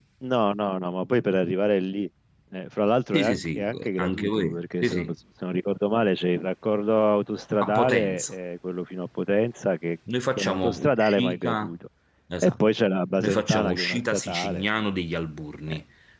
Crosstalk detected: Yes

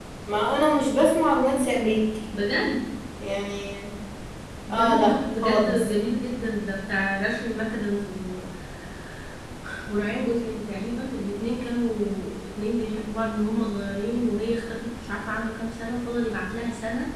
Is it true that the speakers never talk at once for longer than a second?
No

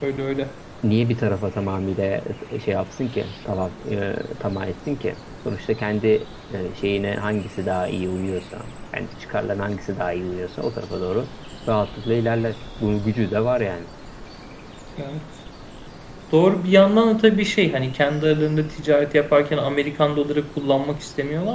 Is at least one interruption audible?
No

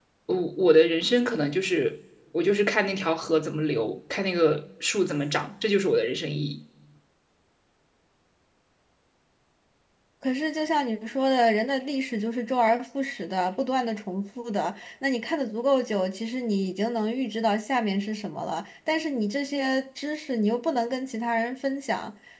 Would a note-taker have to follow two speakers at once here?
No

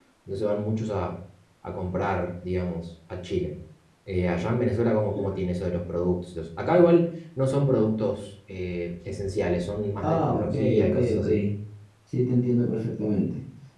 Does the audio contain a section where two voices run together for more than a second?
Yes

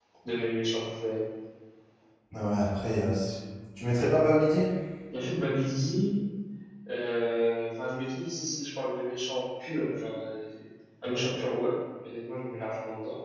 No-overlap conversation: Yes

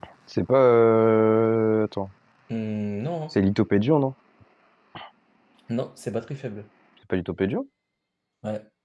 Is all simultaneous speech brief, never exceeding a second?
Yes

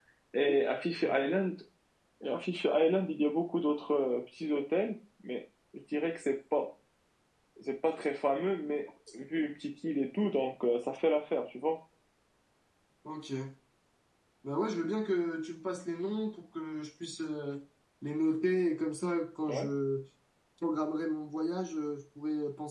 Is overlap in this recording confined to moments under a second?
Yes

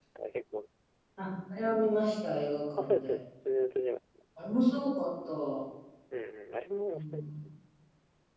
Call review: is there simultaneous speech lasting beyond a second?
No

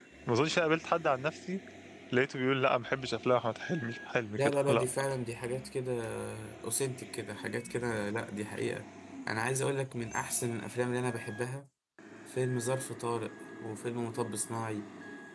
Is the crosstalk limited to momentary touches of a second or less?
Yes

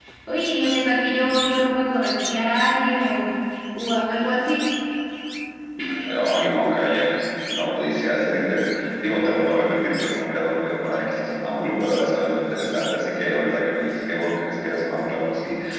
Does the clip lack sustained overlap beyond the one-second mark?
Yes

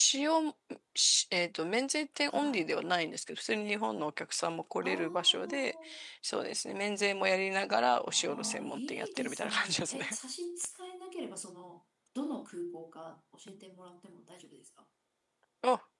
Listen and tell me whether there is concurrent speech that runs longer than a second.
Yes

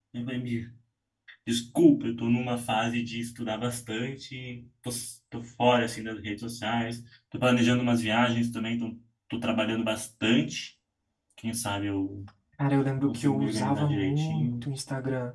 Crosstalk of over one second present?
Yes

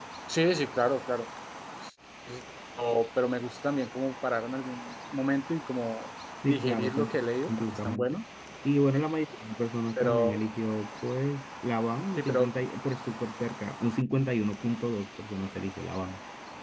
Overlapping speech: Yes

